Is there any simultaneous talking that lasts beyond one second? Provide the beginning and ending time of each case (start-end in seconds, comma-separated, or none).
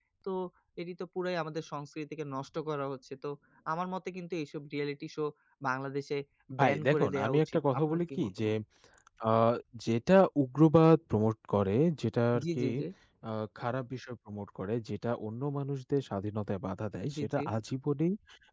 6.6-8.5